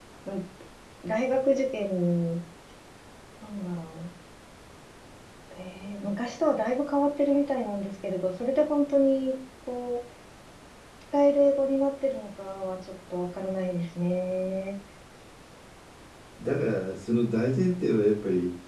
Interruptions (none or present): none